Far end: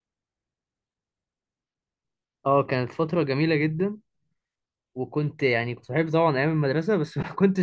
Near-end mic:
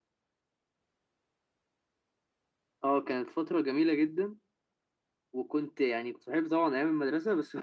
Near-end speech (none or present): none